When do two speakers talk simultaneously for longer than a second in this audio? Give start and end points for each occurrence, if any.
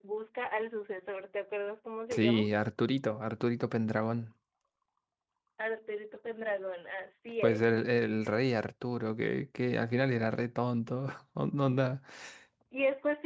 none

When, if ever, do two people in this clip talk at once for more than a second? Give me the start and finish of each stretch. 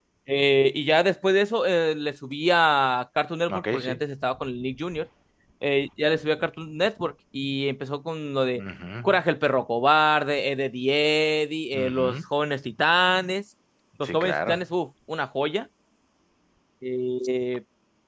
none

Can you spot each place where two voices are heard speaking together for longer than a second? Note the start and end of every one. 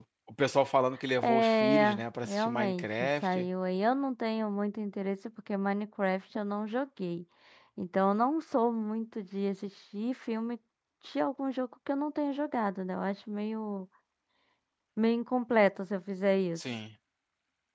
1.2-3.5

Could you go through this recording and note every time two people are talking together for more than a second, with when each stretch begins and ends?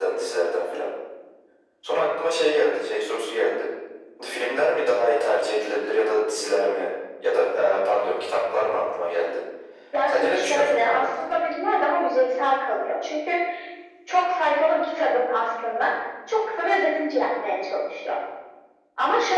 10.1-11.4

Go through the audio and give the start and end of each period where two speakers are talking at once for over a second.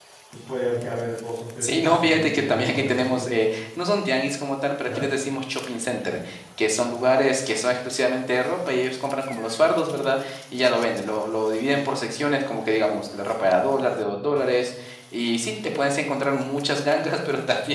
1.6-3.2

